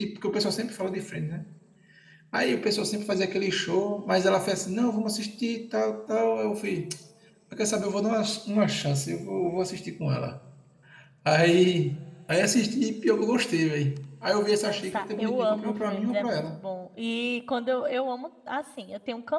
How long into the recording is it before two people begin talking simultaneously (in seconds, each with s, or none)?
14.5 s